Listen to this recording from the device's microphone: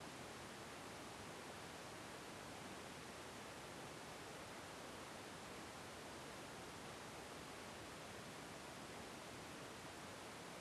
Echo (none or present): none